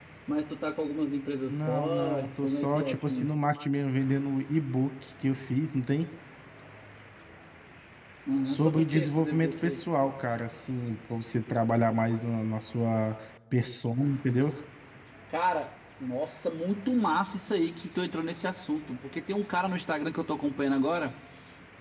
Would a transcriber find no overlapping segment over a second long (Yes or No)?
No